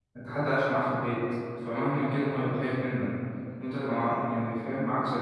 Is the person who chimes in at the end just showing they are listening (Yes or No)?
Yes